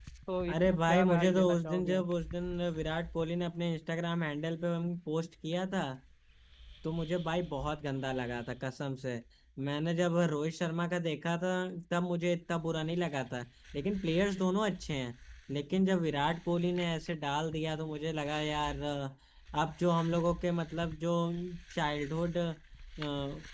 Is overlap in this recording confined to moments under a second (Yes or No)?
No